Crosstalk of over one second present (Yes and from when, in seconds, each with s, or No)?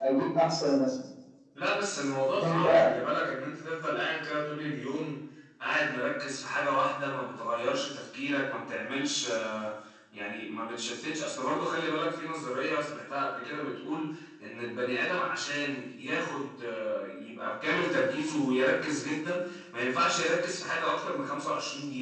No